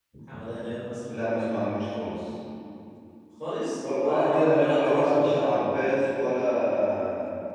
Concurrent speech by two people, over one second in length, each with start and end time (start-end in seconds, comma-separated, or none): 3.8-5.4